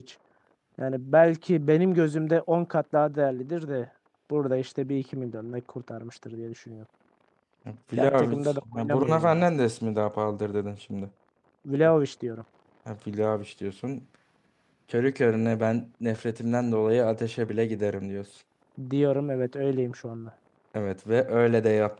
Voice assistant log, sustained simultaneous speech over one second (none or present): present